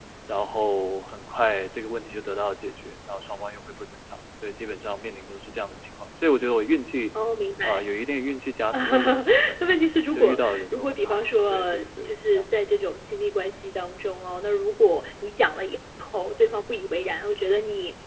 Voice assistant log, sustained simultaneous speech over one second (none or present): present